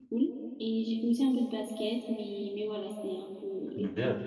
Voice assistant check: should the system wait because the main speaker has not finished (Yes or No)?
No